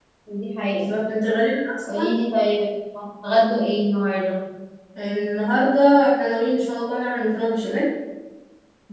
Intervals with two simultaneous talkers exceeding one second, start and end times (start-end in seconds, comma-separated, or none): none